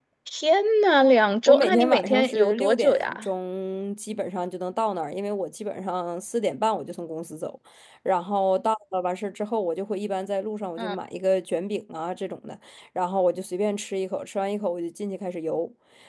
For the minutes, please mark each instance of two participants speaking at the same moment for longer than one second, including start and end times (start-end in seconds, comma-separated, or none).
1.5-3.2